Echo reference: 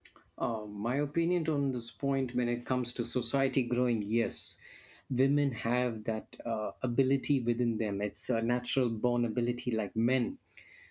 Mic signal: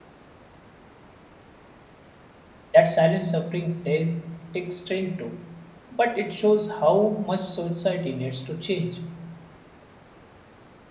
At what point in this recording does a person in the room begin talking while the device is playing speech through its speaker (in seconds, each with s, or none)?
2.7 s